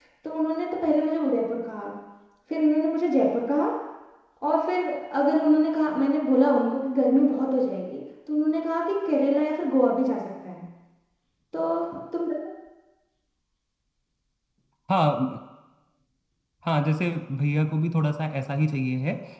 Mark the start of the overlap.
none

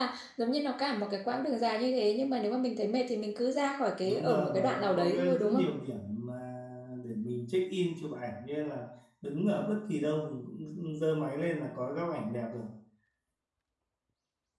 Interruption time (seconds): 4.0 s

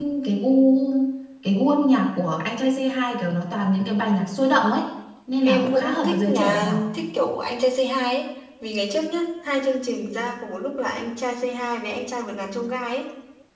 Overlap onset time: 5.4 s

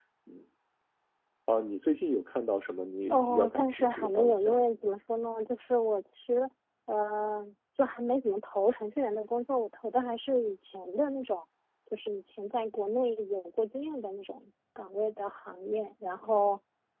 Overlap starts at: 3.1 s

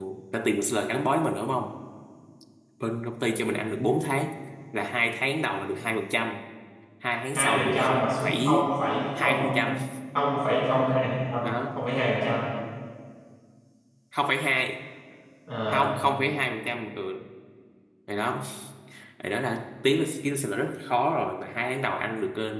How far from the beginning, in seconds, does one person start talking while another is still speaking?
7.3 s

